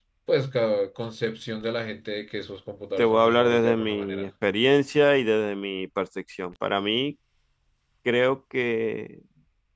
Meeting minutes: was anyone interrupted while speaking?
Yes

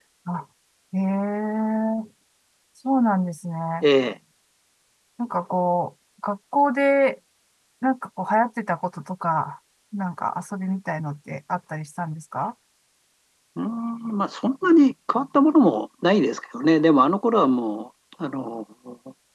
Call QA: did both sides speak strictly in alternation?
Yes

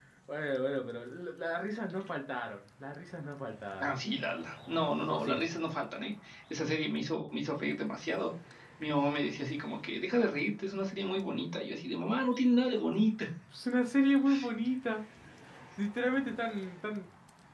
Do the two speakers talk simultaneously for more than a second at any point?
No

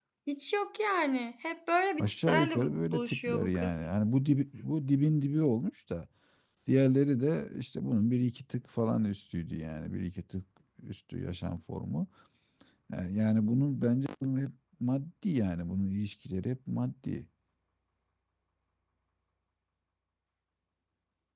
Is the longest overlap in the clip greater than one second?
Yes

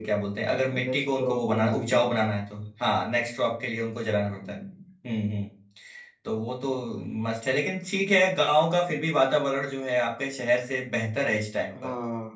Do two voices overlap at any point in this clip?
Yes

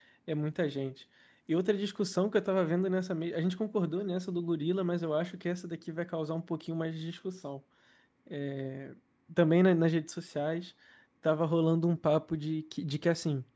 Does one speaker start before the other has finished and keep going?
No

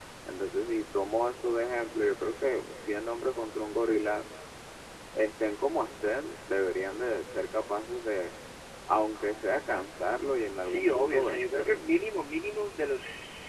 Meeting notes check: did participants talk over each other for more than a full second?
Yes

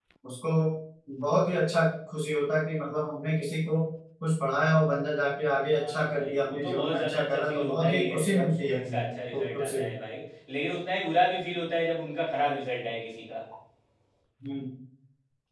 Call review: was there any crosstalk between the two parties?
Yes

